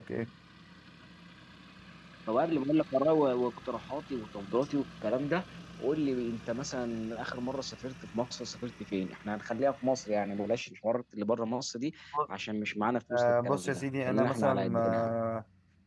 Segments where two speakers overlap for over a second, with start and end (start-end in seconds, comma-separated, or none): 13.1-15.1